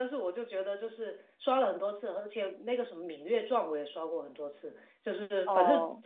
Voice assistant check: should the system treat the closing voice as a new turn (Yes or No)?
No